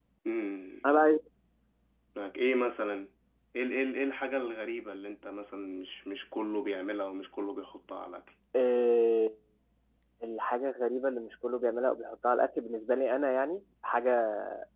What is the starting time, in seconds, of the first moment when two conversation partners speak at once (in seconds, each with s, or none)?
none